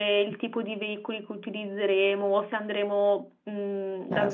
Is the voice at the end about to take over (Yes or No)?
No